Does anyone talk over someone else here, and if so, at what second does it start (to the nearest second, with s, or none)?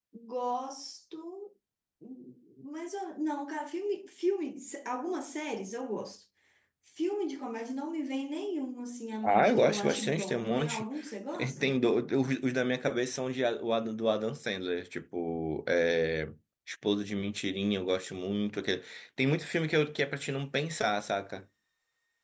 9 s